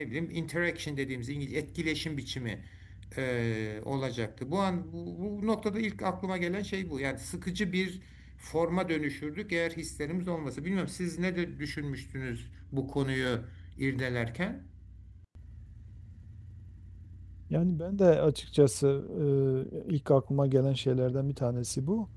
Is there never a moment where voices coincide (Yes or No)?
Yes